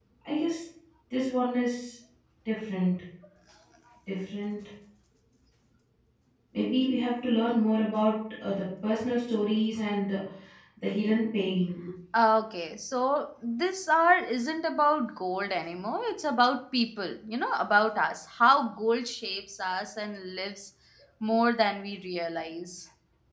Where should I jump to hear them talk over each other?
none

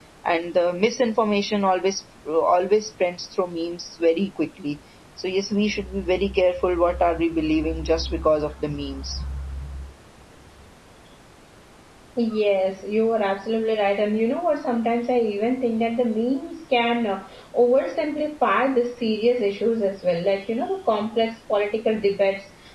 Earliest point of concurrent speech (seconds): none

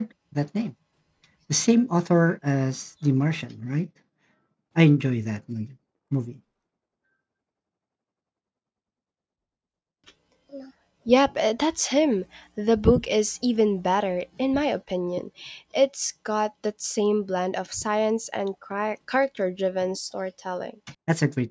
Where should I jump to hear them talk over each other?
none

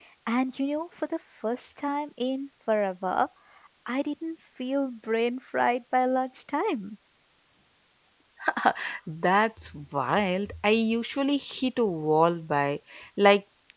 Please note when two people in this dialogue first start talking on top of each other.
none

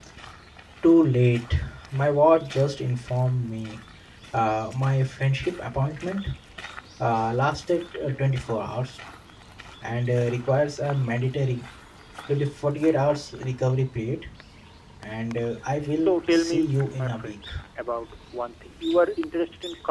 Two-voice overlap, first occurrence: 16.0 s

